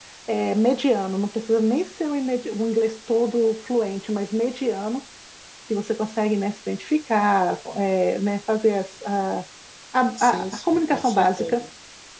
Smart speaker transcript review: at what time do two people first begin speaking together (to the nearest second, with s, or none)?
10 s